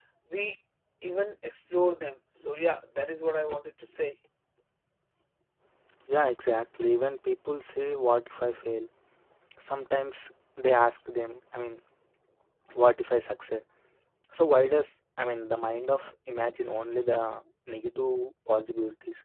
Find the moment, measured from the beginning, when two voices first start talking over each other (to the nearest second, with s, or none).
none